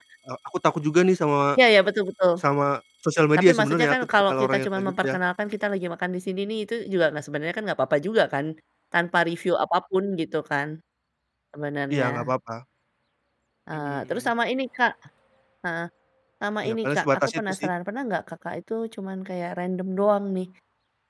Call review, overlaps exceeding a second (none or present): present